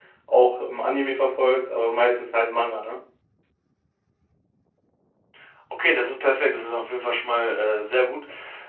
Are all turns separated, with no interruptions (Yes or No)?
Yes